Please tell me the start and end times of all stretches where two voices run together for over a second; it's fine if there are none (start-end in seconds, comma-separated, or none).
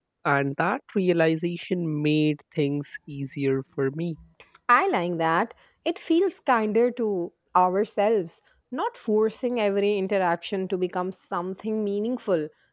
none